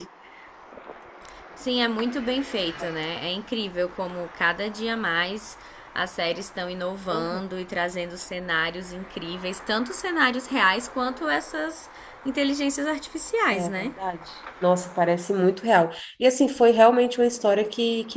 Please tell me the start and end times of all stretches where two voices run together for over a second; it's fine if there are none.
none

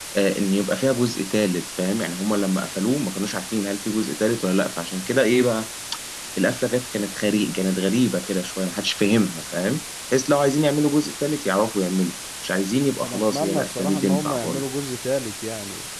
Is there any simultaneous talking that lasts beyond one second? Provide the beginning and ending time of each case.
13.0-14.6

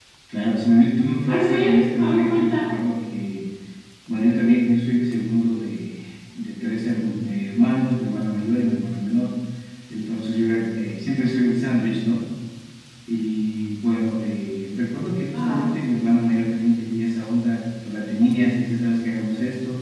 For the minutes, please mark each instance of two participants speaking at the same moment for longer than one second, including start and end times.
1.2-2.7

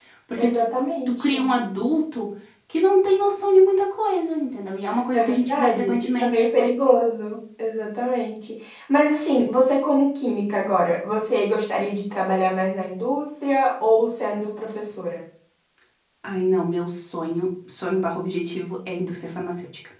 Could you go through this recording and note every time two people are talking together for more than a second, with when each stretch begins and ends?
5.1-6.5

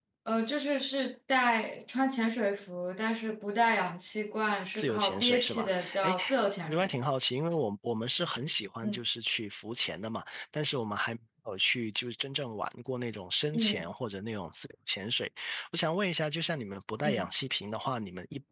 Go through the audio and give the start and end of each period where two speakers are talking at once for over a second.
4.8-6.1

